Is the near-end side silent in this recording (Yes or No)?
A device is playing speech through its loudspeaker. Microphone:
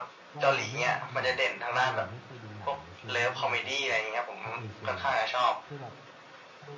No